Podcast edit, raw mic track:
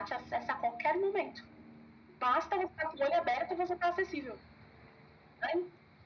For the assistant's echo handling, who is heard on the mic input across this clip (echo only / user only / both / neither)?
echo only